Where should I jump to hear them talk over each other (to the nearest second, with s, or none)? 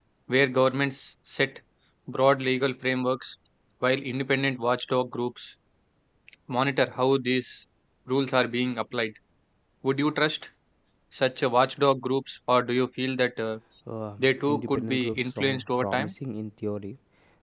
14 s